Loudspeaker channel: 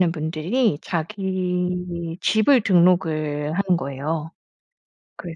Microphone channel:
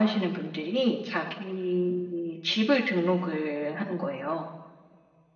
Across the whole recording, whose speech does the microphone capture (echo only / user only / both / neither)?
echo only